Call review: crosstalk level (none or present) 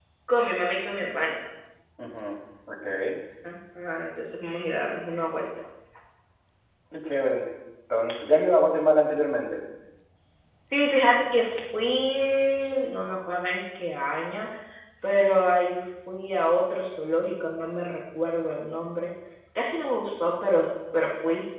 none